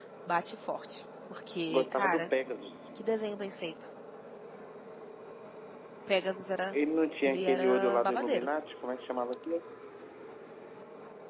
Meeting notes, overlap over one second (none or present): present